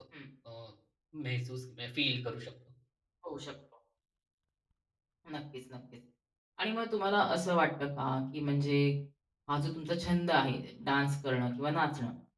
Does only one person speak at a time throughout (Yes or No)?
Yes